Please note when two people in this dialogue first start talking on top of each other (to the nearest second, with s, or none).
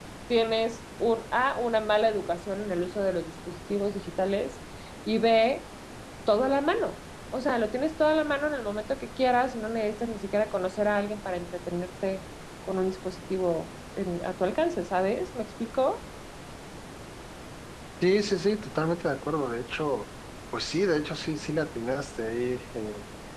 none